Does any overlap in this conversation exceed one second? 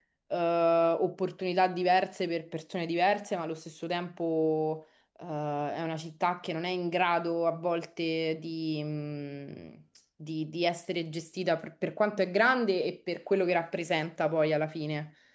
No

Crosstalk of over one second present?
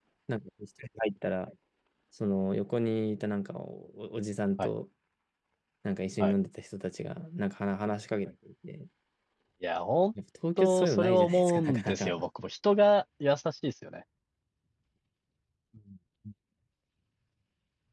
Yes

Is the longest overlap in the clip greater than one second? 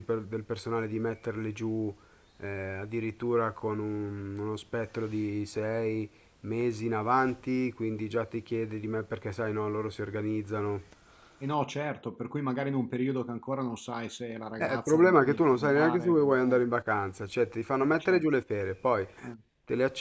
Yes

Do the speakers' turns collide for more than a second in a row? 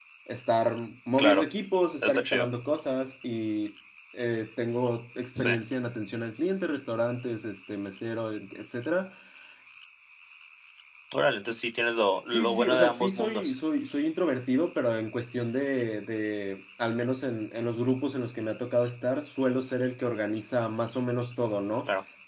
Yes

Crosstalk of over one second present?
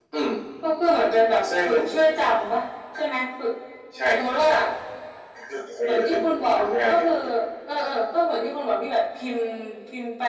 Yes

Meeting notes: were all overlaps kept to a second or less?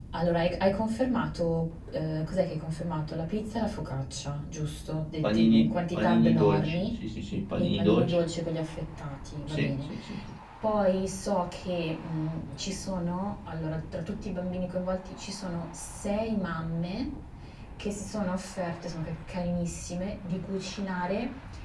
No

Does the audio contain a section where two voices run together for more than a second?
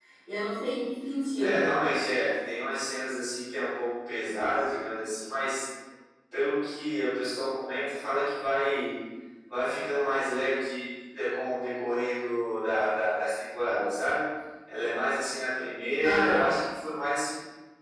No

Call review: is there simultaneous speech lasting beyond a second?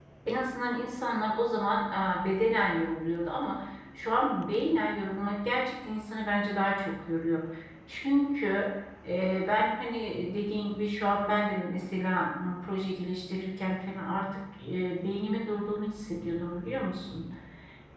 No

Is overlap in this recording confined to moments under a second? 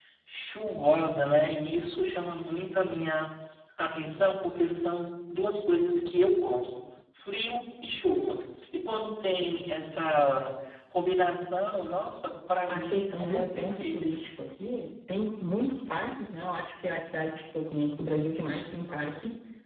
No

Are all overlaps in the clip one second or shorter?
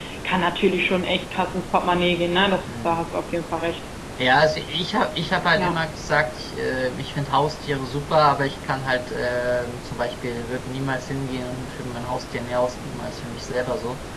Yes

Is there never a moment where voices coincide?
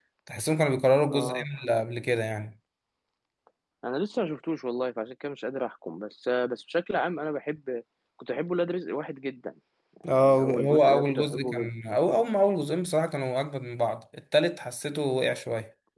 No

